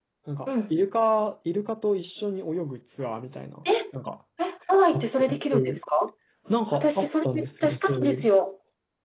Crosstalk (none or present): present